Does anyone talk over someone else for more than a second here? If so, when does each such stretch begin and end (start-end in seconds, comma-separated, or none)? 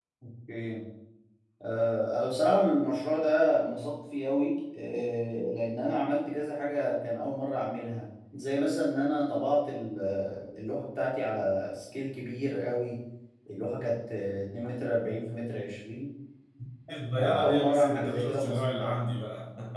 17.2-18.9